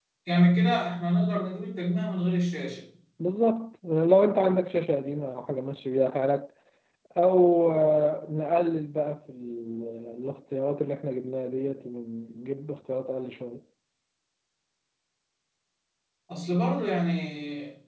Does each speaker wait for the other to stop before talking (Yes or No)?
Yes